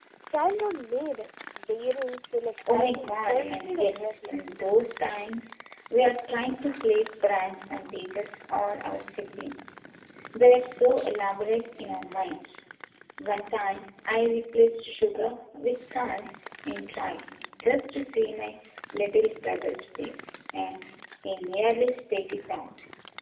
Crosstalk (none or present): present